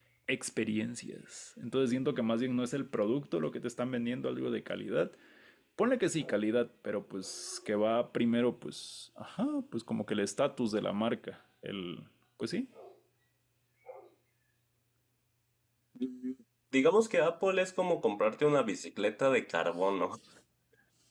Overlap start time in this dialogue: none

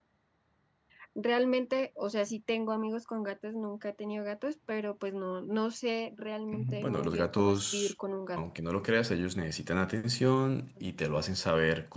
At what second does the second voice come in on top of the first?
6.5 s

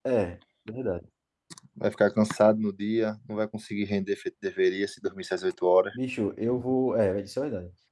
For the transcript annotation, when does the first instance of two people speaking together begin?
none

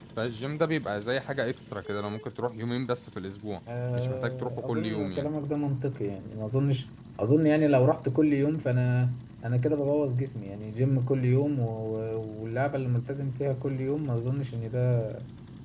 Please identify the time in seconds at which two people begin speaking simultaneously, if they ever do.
4.0 s

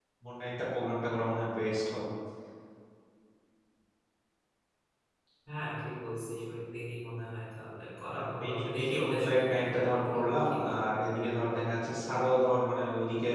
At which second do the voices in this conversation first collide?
8.1 s

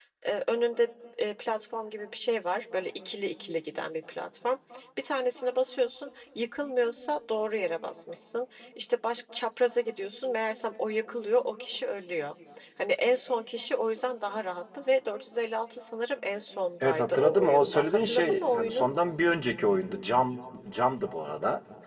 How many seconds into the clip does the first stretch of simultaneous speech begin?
16.8 s

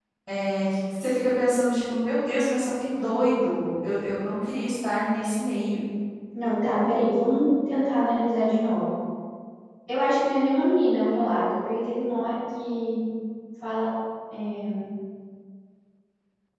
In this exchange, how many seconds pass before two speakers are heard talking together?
none

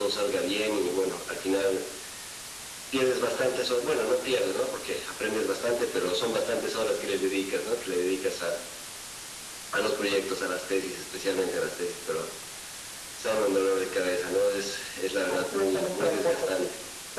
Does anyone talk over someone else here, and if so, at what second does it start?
15.3 s

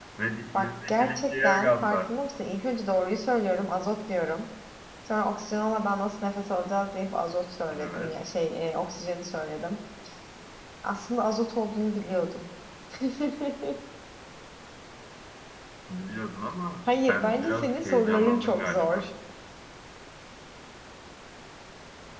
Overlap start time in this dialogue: 0.5 s

